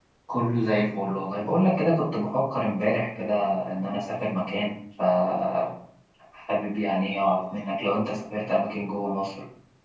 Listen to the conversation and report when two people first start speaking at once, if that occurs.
none

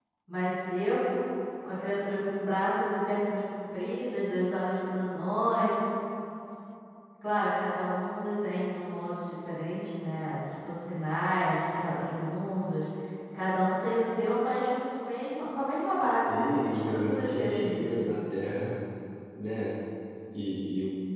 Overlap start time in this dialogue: 16.1 s

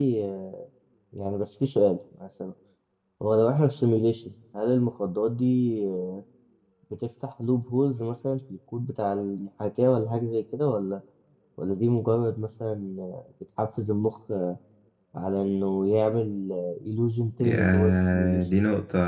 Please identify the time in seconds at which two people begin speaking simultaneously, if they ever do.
17.4 s

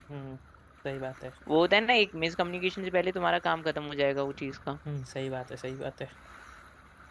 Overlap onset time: none

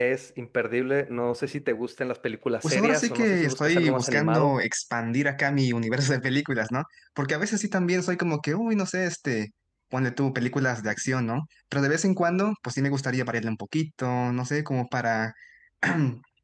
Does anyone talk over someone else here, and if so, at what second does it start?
2.6 s

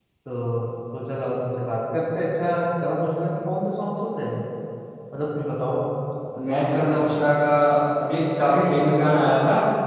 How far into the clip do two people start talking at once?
none

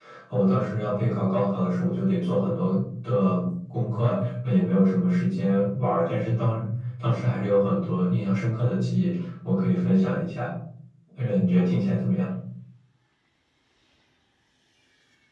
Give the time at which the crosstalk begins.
none

